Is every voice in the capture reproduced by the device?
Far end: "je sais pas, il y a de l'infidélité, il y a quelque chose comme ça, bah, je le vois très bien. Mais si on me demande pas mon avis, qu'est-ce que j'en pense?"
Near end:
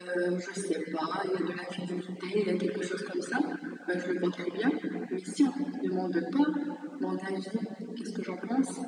Yes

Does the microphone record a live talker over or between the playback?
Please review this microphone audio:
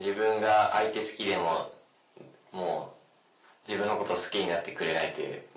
No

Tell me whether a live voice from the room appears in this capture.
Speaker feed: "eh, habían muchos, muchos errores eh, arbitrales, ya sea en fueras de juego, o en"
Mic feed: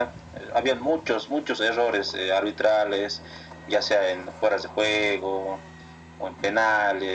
No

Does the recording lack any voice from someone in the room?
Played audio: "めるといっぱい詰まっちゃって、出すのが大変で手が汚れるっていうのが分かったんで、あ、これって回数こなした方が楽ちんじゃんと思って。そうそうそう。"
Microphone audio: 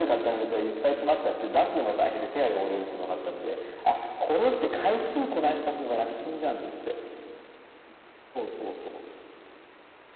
Yes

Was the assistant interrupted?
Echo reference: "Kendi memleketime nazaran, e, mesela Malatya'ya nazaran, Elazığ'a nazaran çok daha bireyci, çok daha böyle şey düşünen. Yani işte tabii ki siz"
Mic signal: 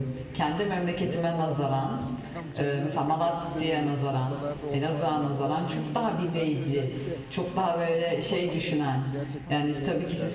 Yes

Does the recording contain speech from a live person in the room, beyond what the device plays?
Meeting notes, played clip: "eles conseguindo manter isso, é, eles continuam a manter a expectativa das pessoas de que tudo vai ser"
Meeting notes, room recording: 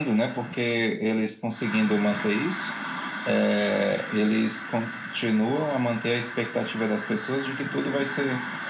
No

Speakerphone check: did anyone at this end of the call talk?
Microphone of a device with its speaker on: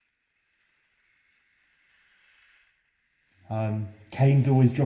Yes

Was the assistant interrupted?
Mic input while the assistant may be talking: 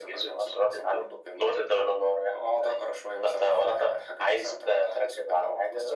No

